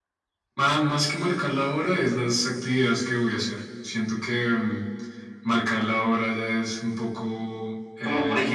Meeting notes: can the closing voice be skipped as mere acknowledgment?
No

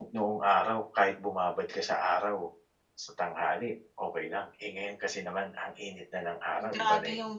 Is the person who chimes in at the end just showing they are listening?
No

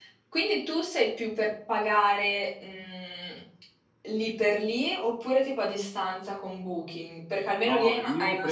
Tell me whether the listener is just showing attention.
No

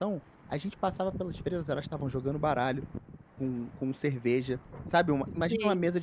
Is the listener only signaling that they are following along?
Yes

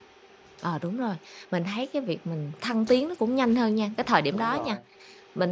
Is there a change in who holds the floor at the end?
No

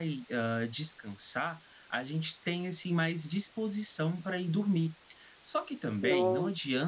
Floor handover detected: No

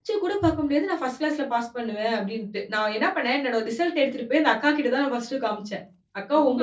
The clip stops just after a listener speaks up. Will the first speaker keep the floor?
Yes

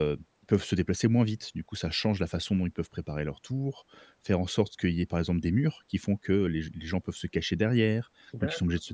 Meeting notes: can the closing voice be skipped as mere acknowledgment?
Yes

